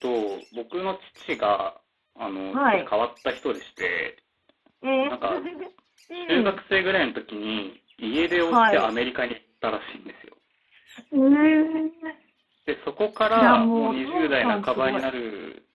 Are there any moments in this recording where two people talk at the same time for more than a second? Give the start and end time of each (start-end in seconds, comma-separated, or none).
13.4-15.1